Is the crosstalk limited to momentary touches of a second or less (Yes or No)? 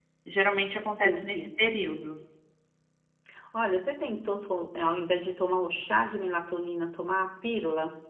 Yes